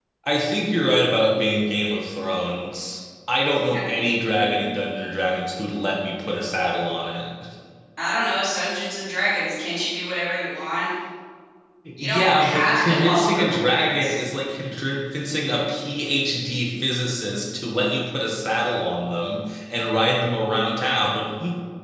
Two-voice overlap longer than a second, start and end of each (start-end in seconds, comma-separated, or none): 12.0-14.2